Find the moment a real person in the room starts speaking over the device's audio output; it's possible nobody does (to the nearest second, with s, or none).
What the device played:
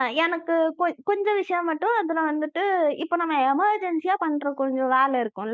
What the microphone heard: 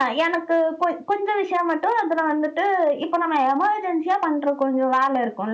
none